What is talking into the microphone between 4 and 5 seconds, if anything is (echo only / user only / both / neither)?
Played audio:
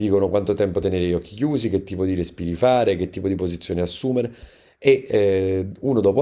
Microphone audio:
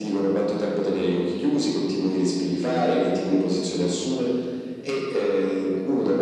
echo only